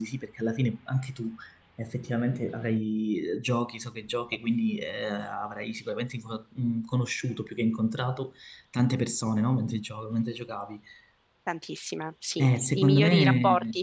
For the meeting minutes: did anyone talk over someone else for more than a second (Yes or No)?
Yes